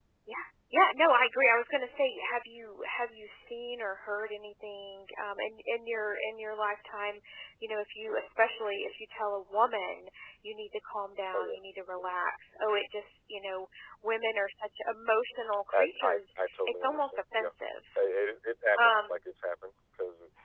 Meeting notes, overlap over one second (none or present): present